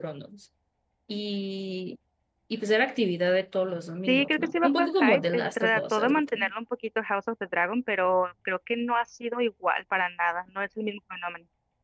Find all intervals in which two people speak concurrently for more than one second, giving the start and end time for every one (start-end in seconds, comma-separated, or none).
4.1-6.4